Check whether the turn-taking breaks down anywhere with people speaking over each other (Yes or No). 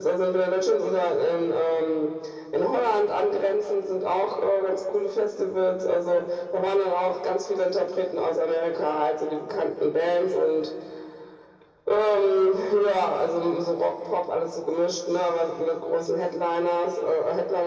No